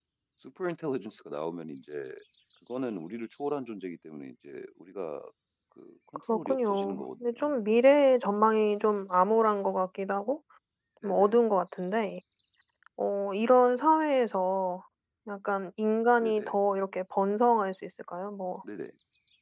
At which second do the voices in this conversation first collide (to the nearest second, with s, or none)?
6 s